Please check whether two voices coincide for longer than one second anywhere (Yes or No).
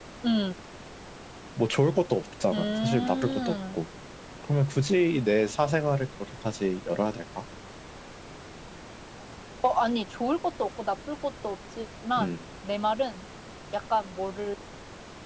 Yes